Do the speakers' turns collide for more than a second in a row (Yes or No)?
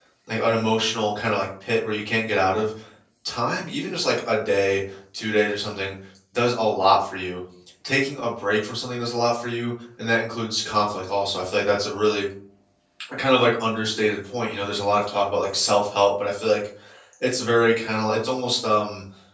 No